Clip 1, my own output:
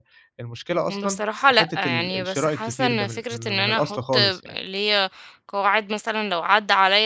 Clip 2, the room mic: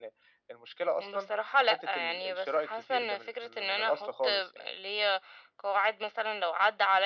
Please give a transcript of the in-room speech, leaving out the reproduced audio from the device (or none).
none